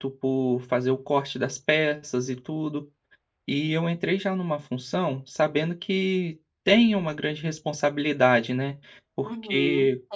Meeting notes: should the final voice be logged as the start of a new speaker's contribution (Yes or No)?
Yes